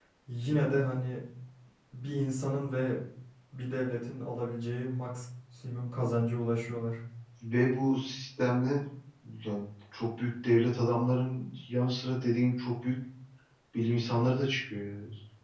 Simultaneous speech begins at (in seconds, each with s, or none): none